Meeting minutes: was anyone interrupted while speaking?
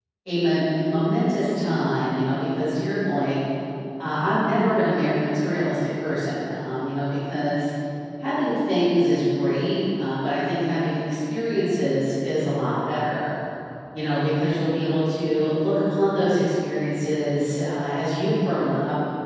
No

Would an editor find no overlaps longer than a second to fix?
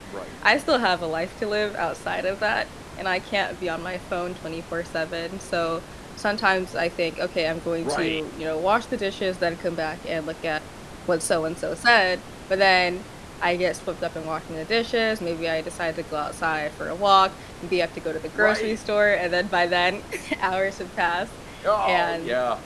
Yes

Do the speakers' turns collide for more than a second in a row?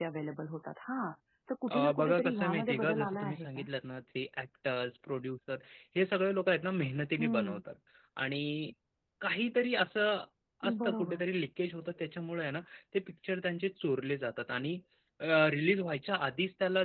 Yes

